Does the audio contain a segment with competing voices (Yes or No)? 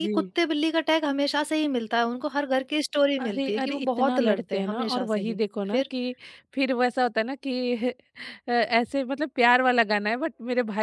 Yes